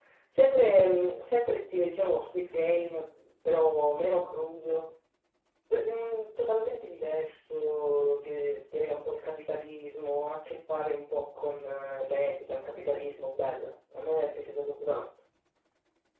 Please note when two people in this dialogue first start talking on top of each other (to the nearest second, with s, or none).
none